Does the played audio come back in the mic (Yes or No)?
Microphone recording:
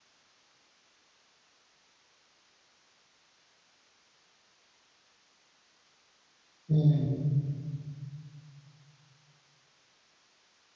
No